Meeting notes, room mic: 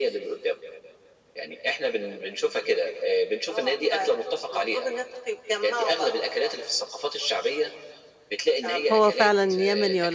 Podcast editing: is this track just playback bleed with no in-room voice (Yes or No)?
No